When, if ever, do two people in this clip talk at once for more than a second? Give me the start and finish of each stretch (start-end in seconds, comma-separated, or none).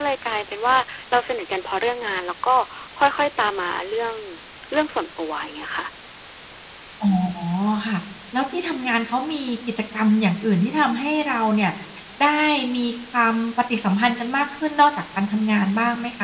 none